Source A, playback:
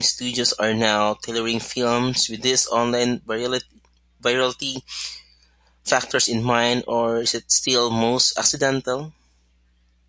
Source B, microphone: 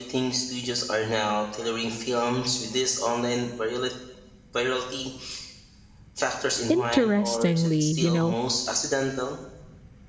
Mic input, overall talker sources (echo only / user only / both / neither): both